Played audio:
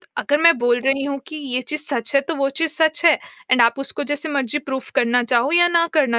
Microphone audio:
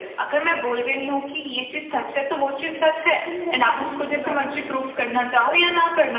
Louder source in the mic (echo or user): echo